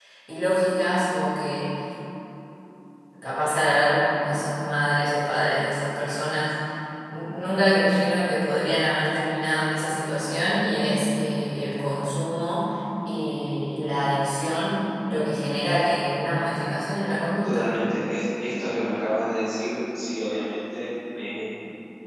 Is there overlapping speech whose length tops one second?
No

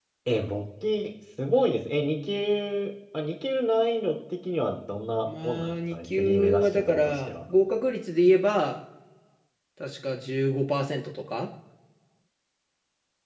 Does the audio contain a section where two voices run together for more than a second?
Yes, from 5.2 s

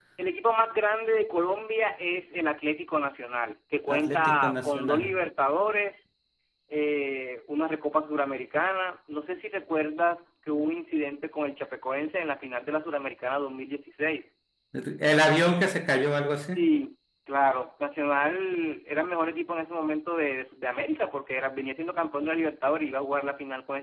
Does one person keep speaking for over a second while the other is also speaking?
Yes, from 3.9 s

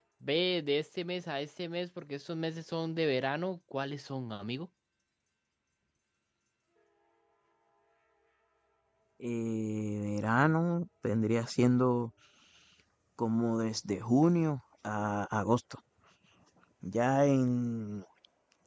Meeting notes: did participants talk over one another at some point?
No

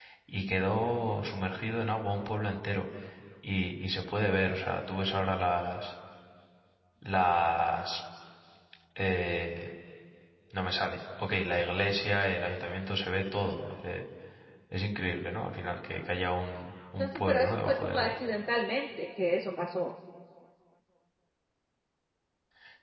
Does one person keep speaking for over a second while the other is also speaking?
Yes, from 17.0 s

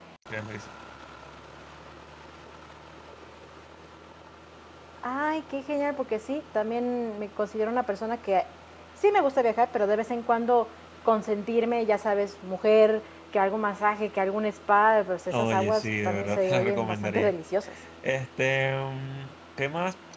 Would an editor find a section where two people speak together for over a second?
Yes, from 15.3 s

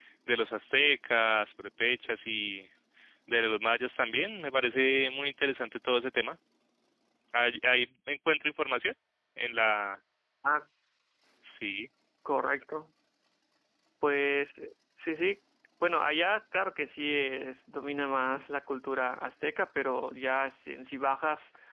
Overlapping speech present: No

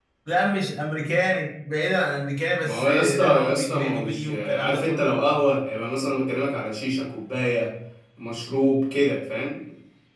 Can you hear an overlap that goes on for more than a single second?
Yes, from 2.6 s

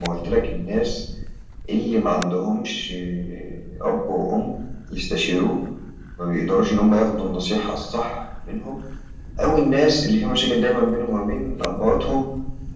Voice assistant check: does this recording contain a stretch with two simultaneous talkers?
No

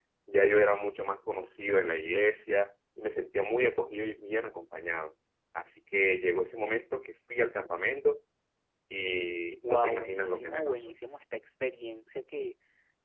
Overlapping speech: Yes, from 9.6 s

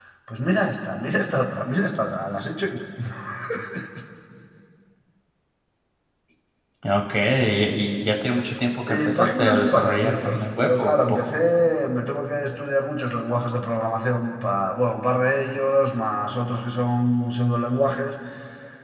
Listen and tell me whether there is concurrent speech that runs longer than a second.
Yes, from 8.9 s

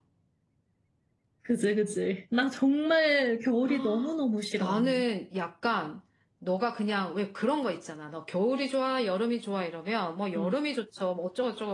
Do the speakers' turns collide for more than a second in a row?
No

